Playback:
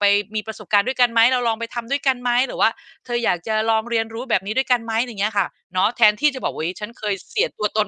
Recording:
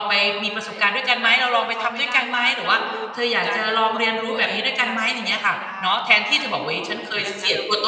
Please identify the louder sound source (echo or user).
echo